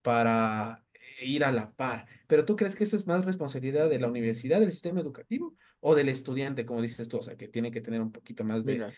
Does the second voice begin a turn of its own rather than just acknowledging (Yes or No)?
Yes